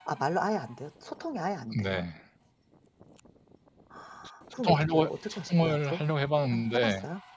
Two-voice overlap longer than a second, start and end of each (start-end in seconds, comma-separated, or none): 4.5-6.0